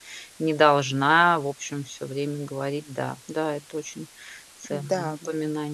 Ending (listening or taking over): taking over